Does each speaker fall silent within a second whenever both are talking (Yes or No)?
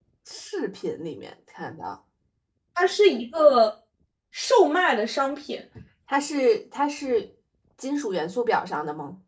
Yes